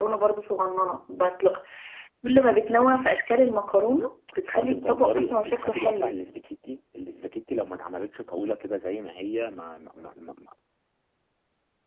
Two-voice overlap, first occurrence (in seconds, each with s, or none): 4.5 s